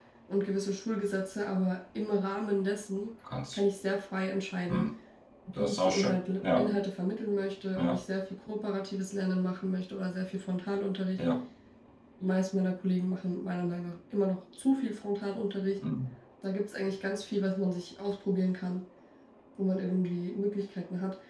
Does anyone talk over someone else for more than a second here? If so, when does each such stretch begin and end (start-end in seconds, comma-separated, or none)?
5.5-6.8